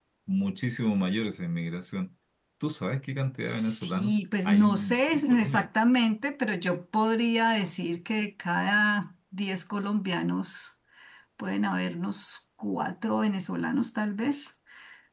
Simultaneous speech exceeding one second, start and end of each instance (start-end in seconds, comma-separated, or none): 3.4-5.7